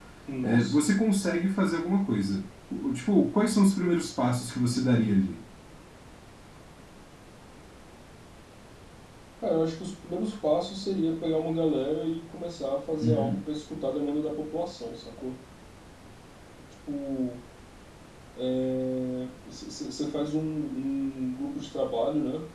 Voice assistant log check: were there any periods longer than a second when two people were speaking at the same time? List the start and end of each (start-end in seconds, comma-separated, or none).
none